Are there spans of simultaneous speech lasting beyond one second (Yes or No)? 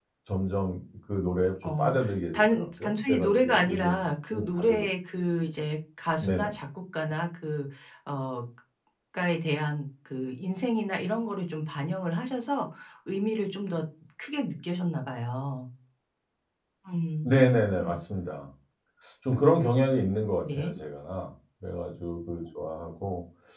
Yes